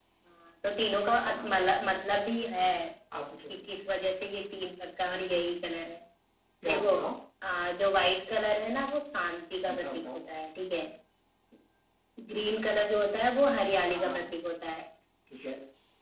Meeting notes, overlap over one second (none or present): none